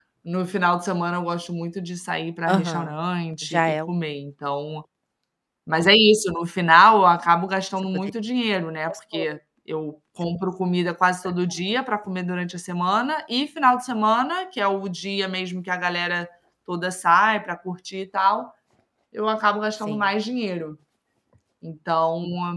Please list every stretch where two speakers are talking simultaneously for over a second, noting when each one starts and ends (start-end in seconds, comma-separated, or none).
none